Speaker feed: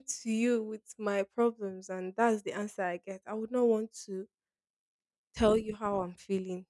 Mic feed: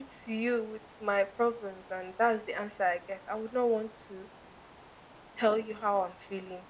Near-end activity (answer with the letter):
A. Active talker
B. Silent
B